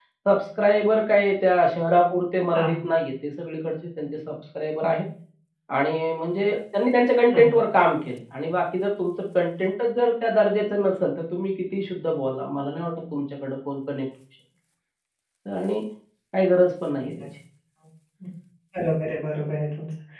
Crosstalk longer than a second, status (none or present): none